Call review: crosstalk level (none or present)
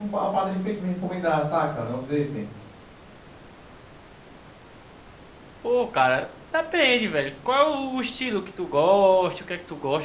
none